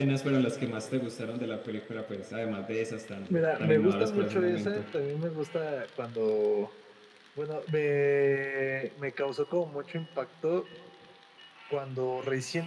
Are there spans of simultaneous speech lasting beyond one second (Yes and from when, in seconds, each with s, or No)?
Yes, from 3.3 s